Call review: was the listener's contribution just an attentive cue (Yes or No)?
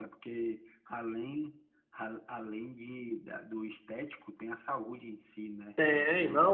No